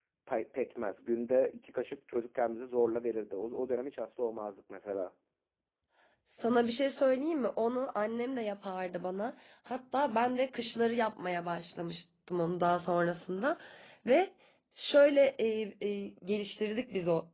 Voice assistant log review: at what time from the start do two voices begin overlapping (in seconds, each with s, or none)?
none